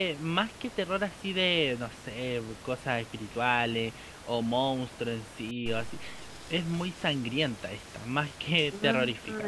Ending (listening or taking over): listening